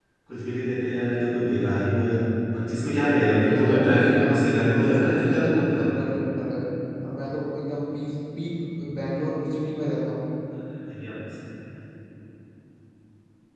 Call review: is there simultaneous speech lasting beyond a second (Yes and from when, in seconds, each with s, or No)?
Yes, from 3.5 s